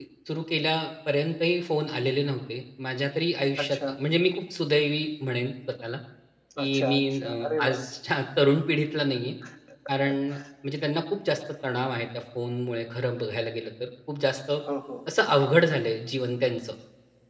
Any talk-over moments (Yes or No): Yes